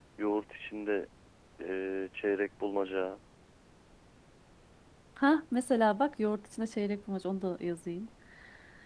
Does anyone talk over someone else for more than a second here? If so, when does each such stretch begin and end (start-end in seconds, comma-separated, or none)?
none